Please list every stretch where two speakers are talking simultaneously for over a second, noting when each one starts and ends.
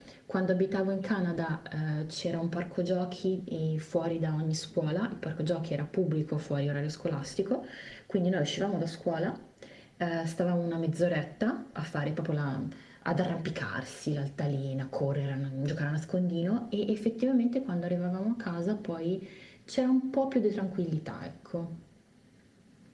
none

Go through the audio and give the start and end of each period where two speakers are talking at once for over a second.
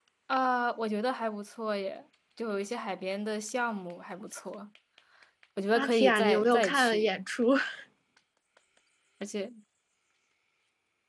5.7-7.1

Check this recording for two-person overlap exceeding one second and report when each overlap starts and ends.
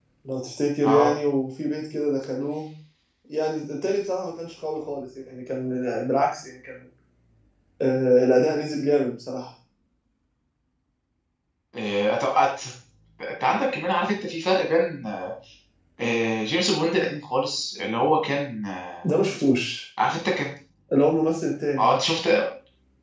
none

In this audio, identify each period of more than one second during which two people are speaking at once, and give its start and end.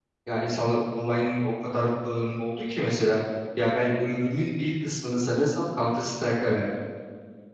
none

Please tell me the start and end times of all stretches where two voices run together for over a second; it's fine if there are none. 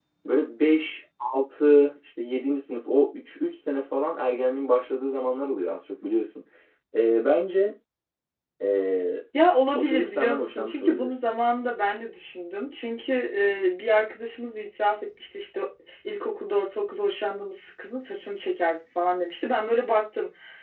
9.8-11.1

